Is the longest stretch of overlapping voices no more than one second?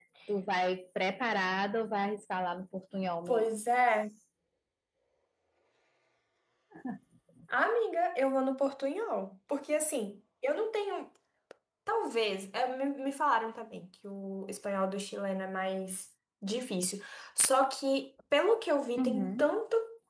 Yes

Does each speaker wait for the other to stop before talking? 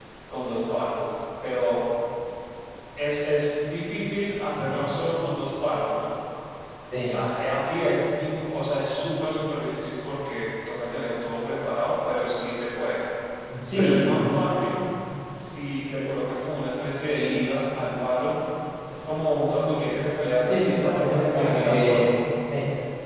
No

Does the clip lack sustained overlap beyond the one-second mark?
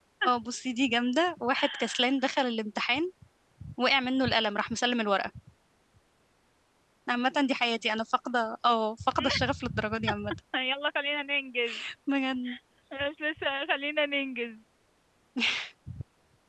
Yes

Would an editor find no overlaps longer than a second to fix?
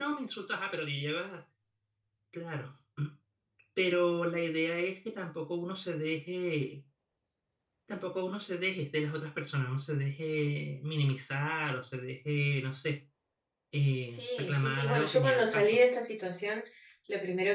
No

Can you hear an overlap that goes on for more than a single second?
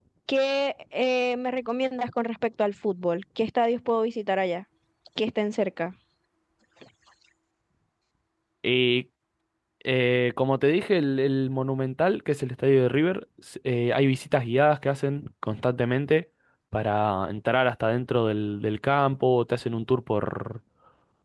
No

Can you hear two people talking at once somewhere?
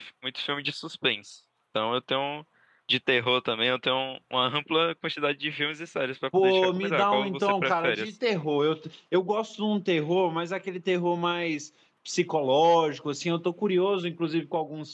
Yes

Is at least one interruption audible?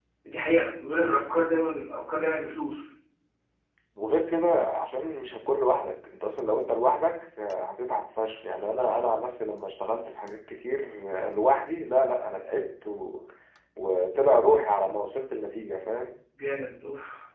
No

